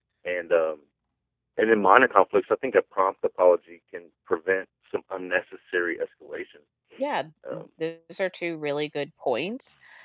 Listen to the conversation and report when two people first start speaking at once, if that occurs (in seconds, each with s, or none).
none